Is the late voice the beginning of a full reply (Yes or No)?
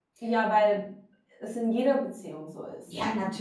Yes